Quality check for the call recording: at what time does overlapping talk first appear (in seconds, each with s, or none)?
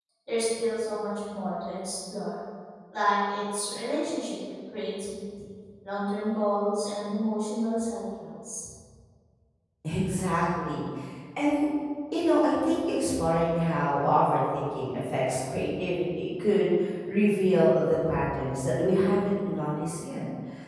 none